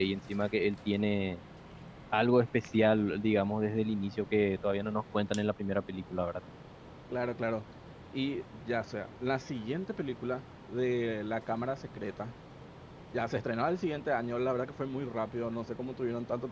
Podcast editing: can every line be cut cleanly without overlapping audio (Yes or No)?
Yes